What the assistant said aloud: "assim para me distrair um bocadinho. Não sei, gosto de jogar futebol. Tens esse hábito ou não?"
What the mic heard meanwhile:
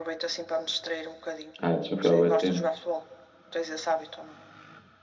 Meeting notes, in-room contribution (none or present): present